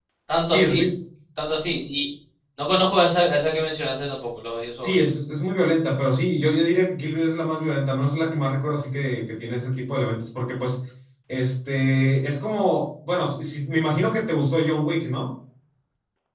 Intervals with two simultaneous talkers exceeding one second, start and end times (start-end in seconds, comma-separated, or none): none